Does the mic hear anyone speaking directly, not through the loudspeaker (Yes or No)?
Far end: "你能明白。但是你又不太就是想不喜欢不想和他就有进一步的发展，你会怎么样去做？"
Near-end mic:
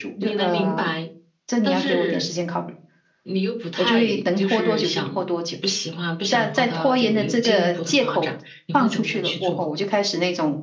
Yes